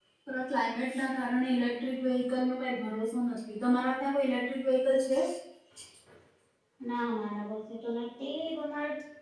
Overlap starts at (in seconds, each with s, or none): none